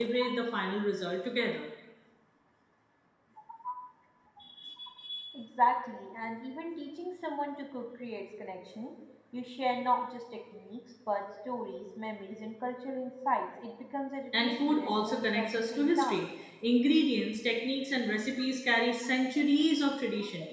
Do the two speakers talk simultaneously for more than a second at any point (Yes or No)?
Yes